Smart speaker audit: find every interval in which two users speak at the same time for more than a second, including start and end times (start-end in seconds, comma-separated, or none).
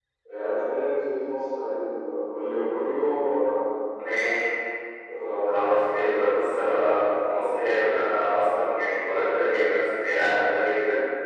none